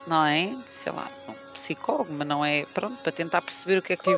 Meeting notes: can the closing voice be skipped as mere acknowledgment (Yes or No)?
No